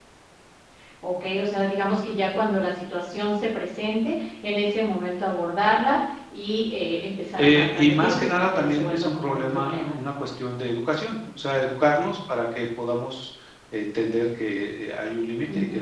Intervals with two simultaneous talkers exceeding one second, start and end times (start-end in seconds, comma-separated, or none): 7.4-9.9